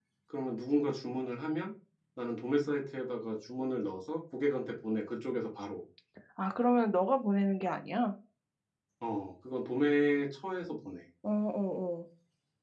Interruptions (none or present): none